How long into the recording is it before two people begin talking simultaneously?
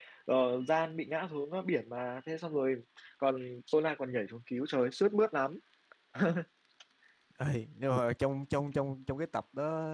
none

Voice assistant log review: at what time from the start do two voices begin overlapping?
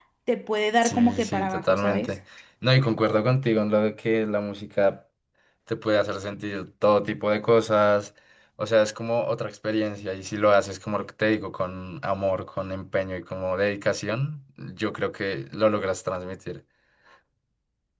0.8 s

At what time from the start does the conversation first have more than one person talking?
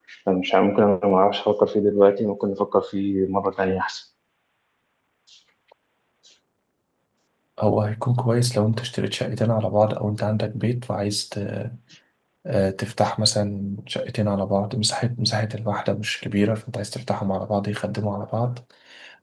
none

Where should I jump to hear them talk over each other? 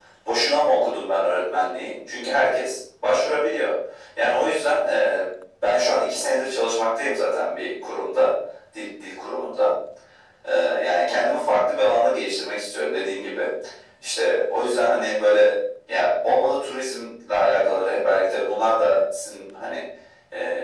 none

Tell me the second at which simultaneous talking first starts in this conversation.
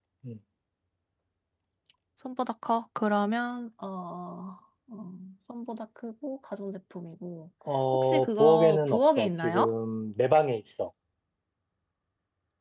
7.9 s

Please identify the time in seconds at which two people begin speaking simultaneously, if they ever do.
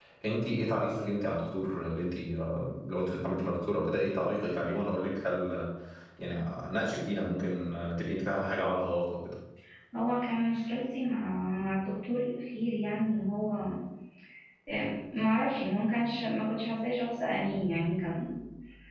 none

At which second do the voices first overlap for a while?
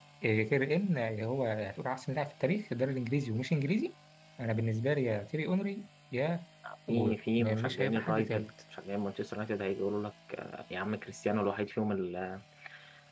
6.9 s

